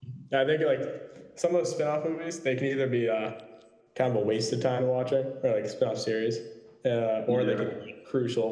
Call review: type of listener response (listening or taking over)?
listening